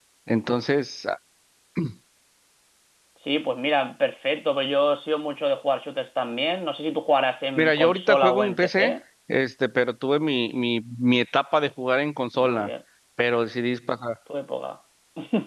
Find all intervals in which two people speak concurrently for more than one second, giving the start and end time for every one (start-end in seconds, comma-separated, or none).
7.6-8.9